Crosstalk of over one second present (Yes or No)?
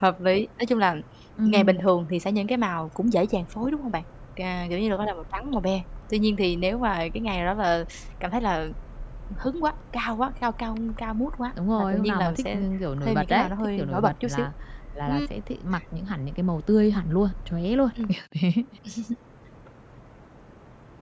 Yes